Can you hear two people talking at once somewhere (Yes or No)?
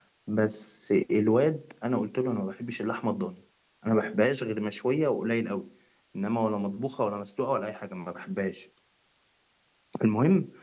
No